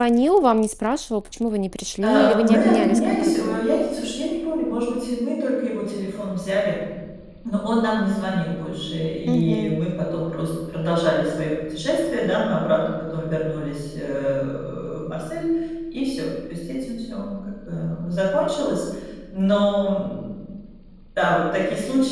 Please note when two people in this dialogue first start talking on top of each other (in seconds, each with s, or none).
2.0 s